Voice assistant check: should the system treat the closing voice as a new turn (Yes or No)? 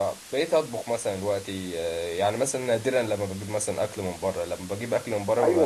Yes